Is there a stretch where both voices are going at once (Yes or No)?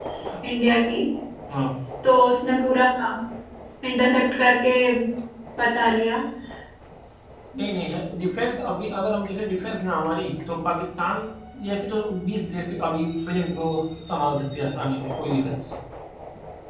No